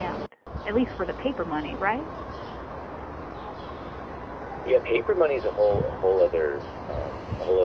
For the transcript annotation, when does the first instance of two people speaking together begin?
none

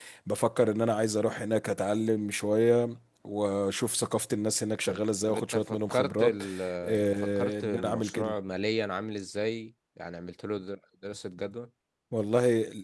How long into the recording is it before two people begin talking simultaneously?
4.9 s

